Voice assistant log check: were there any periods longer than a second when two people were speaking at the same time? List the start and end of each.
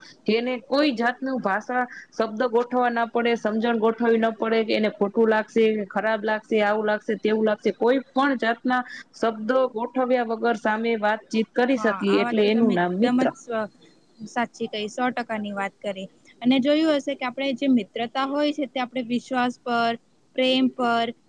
11.8-13.2

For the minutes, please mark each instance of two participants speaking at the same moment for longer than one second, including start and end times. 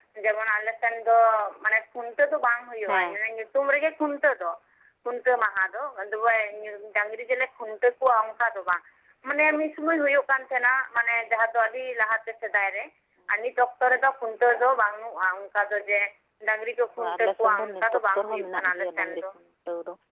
17.0-19.2

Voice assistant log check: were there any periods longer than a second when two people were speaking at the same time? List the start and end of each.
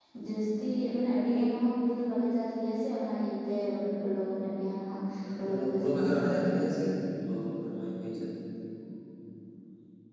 5.4-6.6

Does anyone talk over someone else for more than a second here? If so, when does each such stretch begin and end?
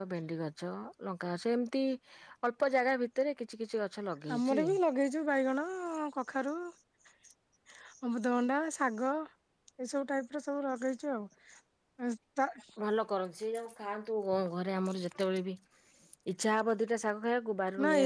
none

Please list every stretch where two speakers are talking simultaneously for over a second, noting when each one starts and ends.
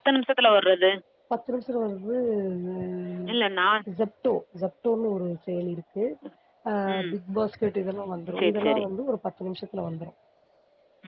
none

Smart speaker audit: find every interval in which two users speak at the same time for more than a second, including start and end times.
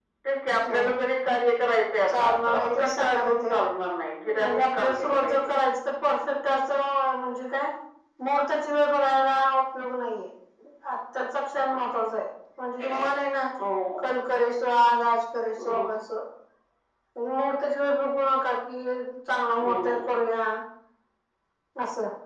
2.1-3.6, 4.3-5.5

